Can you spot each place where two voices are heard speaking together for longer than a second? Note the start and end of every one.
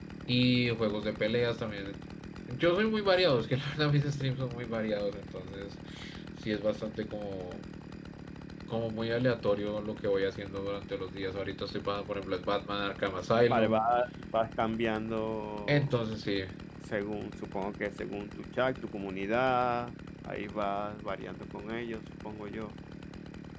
none

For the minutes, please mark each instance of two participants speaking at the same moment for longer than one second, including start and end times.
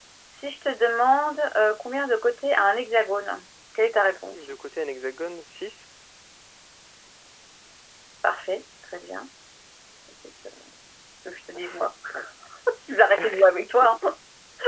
none

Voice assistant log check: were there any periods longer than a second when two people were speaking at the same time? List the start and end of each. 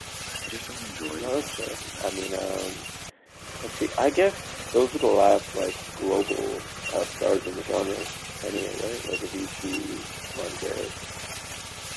1.2-2.6

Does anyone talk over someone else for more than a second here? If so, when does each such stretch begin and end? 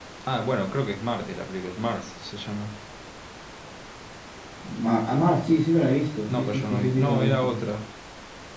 6.2-7.5

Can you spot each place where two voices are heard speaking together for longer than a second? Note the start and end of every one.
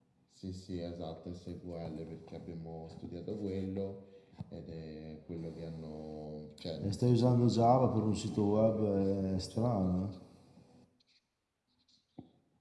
6.8-9.9

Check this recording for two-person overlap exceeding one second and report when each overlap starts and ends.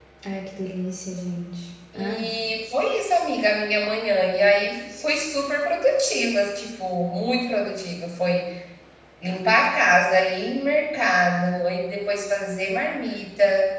none

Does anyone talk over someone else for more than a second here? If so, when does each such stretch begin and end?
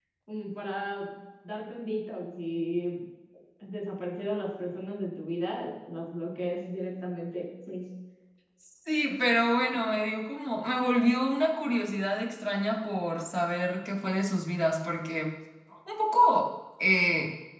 none

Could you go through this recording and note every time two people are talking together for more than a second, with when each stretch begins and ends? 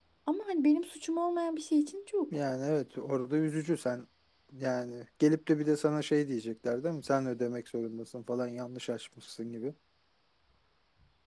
none

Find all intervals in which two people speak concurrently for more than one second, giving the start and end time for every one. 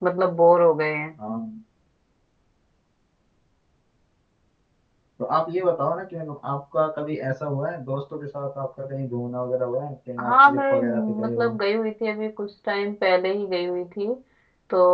10.2-11.5

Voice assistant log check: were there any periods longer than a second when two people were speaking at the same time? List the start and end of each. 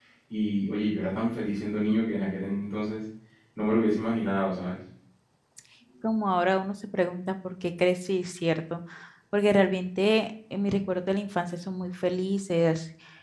none

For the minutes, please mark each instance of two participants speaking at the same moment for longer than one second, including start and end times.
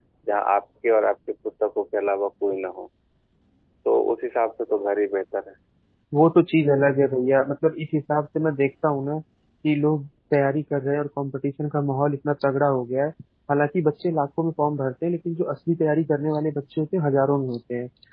none

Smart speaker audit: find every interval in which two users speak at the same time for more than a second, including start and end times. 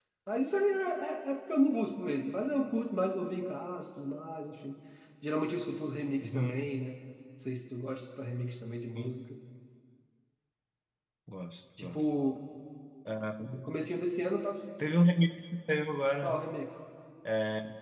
none

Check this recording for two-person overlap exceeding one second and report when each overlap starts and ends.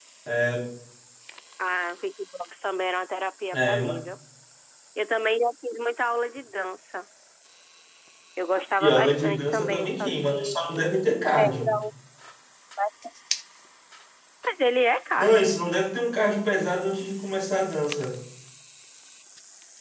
8.8-10.6

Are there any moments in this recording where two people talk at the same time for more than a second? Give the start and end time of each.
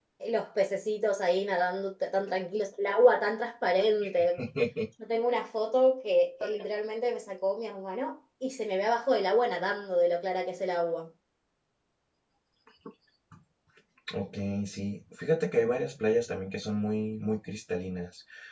none

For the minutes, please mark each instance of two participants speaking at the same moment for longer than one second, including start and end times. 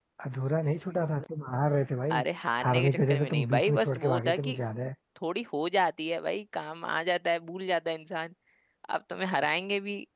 2.6-4.6

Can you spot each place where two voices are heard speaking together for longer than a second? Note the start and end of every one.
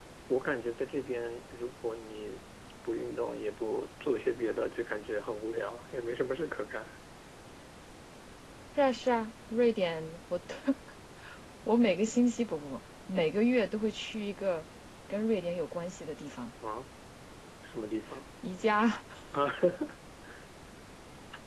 none

